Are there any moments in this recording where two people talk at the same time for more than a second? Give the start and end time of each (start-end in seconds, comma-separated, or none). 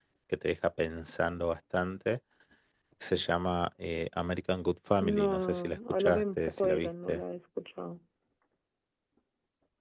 5.0-7.2